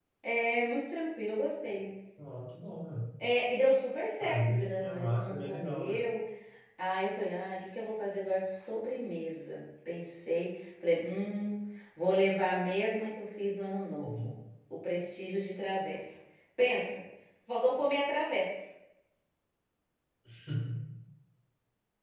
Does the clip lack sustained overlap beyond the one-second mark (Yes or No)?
No